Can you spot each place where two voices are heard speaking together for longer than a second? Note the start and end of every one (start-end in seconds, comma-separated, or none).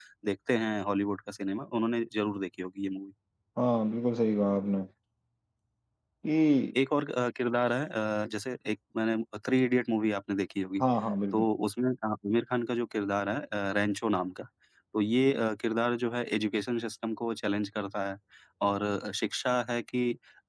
none